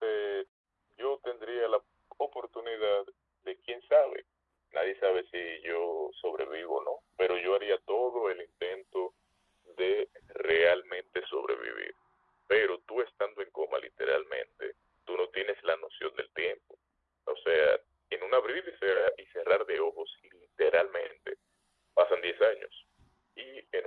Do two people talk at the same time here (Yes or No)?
No